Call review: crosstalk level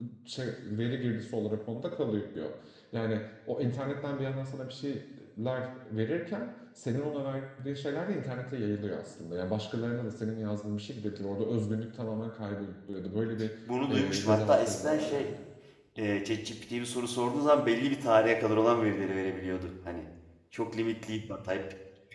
present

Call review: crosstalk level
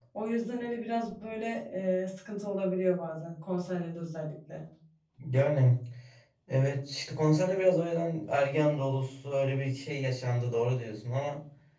none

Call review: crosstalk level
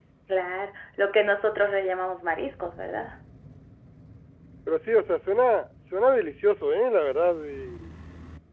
none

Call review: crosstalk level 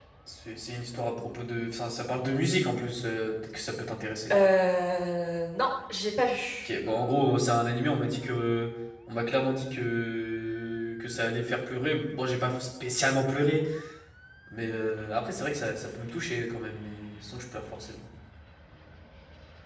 none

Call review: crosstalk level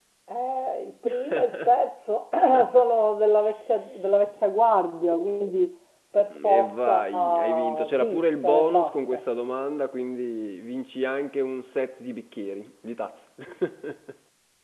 present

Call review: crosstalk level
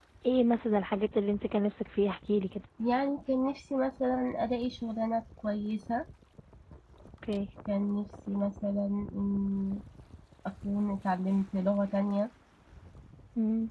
none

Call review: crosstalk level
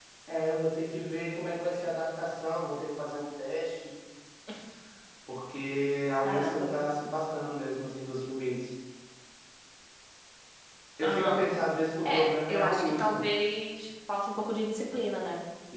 present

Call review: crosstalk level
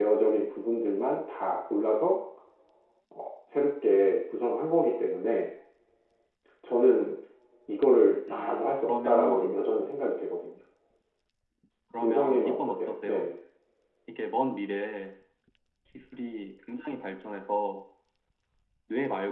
present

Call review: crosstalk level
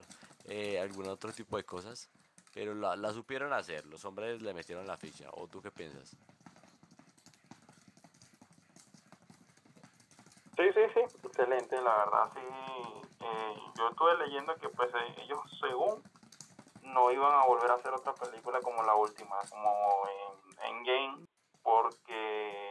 none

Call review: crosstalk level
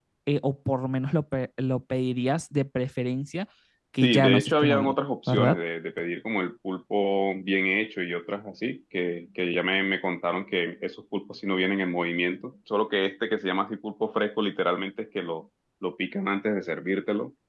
present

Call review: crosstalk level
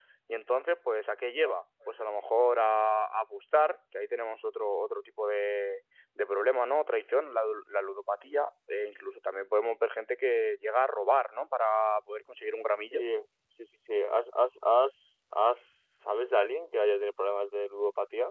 none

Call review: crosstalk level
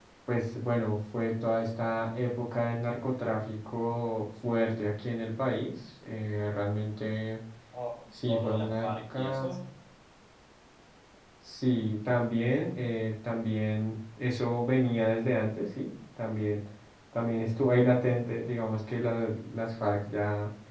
present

